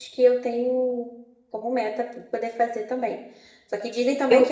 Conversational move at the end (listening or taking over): listening